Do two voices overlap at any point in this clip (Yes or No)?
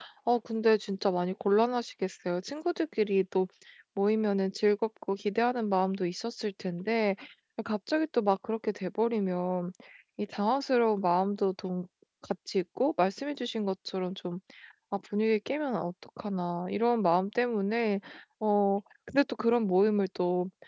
No